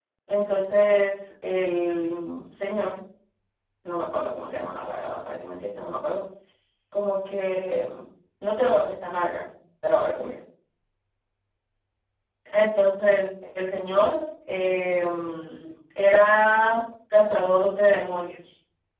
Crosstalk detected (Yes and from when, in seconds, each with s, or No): No